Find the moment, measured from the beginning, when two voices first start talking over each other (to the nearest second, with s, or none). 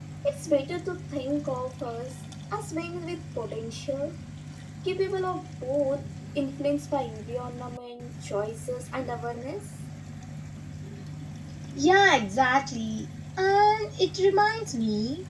none